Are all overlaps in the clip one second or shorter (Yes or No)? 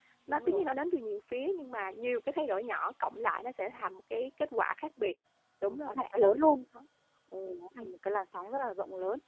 Yes